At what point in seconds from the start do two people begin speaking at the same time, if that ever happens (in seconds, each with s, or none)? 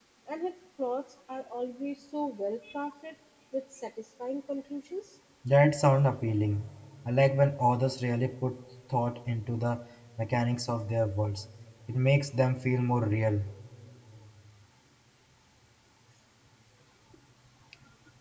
none